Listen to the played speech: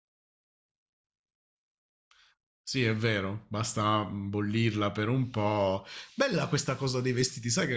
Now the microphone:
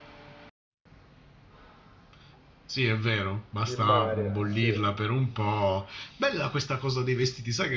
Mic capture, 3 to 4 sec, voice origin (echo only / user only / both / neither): both